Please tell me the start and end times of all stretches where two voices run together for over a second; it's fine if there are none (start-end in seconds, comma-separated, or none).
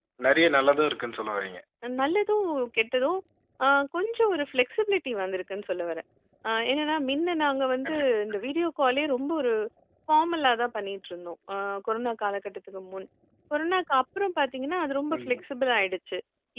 none